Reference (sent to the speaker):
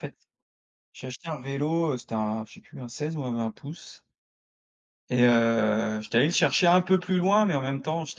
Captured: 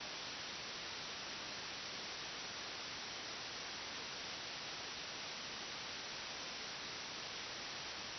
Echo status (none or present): none